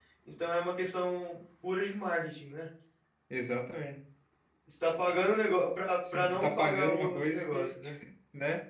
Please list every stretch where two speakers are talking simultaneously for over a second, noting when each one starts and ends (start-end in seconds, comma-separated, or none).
6.1-7.8